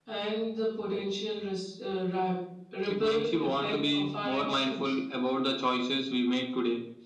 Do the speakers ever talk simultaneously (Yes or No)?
Yes